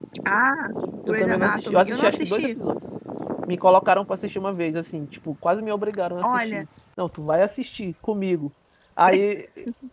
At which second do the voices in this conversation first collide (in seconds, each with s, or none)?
1.0 s